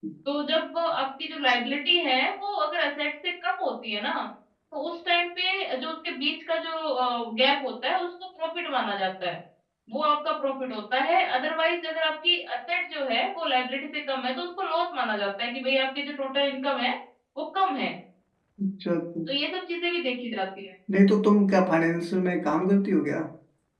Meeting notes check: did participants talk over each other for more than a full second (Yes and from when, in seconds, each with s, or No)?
No